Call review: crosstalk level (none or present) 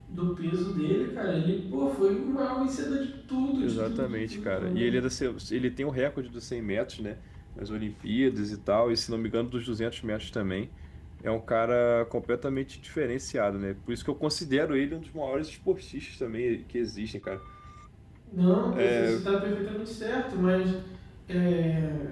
present